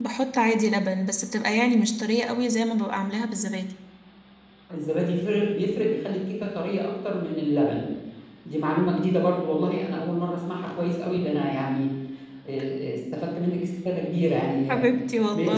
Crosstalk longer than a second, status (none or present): none